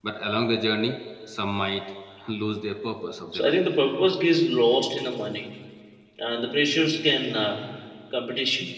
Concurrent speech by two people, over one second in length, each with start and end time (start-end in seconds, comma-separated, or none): none